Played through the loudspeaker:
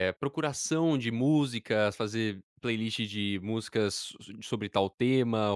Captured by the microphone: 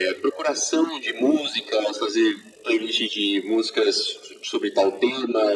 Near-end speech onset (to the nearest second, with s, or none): none